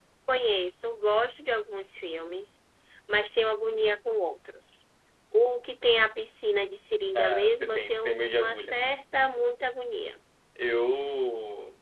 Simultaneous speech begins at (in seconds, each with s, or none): 7.2 s